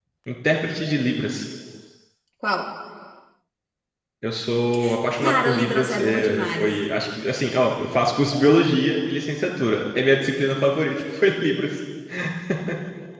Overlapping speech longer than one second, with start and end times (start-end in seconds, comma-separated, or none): 5.2-6.7